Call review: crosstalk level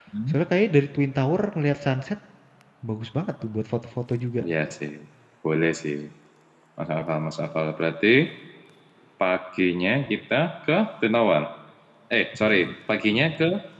none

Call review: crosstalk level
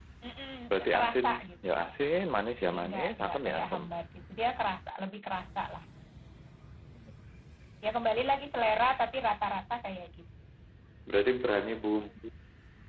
present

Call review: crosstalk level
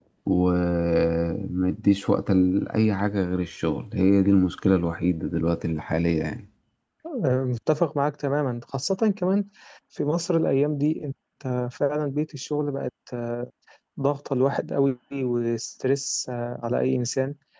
none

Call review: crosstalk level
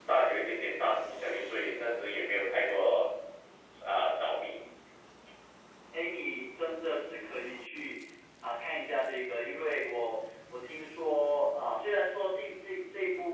none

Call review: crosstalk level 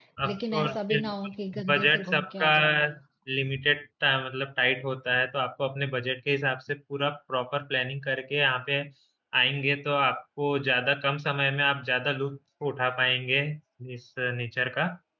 present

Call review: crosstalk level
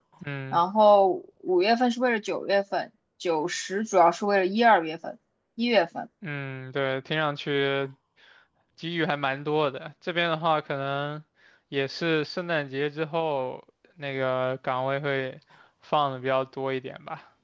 none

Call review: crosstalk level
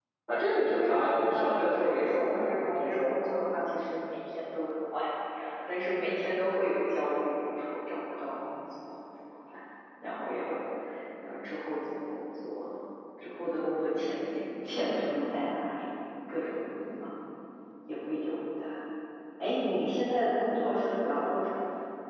present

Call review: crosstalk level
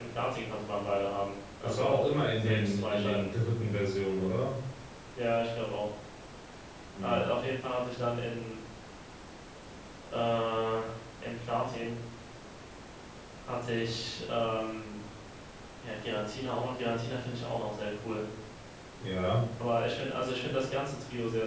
present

